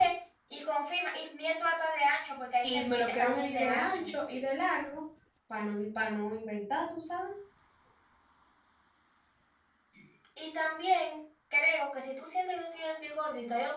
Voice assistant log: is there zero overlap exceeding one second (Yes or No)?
No